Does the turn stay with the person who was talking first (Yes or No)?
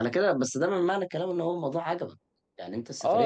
No